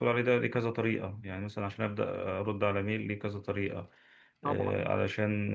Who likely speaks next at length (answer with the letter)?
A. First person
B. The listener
A